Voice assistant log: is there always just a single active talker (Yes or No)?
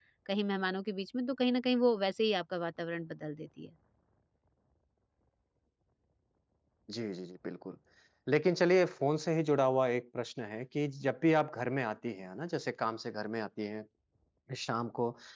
Yes